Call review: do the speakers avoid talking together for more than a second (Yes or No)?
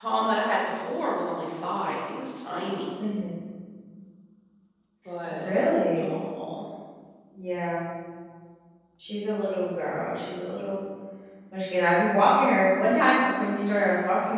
Yes